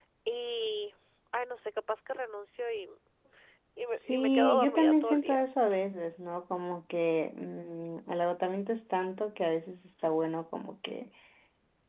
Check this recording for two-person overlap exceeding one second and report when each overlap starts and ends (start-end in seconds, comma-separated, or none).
4.0-5.4